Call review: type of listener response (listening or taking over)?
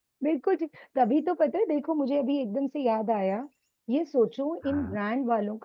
listening